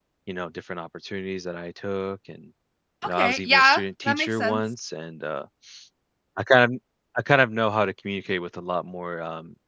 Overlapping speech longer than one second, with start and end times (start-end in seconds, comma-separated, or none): 3.0-4.6